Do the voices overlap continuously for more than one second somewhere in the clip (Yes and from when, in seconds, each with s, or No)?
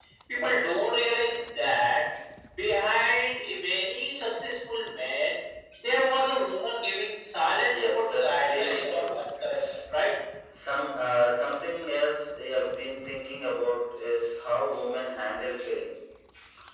Yes, from 7.6 s